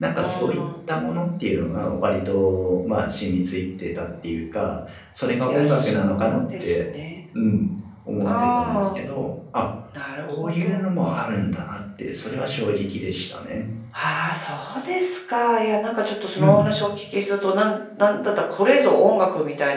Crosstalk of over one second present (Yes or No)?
Yes